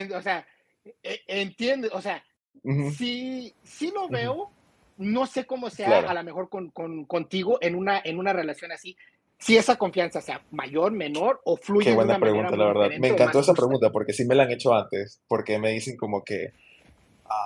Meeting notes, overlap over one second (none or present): present